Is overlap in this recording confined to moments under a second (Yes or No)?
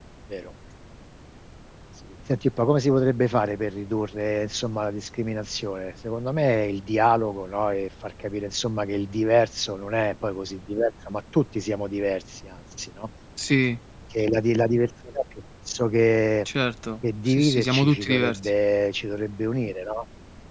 No